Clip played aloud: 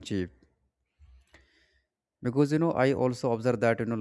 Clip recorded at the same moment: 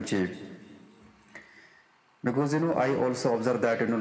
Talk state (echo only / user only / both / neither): echo only